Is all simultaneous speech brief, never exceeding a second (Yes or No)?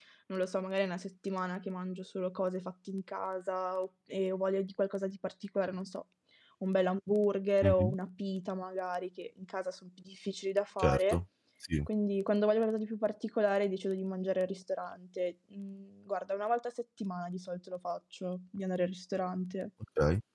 Yes